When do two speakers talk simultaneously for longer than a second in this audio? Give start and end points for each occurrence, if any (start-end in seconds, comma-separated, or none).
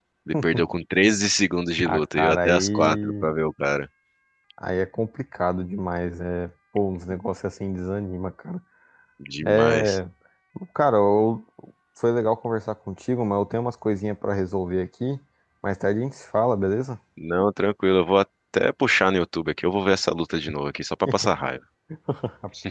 1.9-3.3